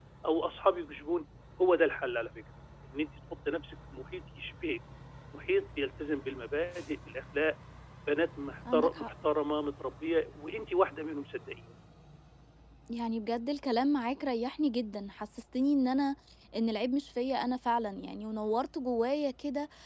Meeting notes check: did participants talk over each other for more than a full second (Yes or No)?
No